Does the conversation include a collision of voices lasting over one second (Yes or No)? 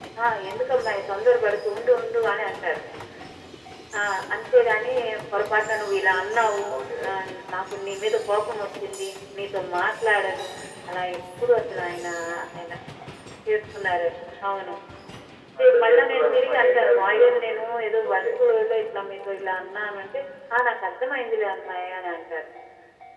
Yes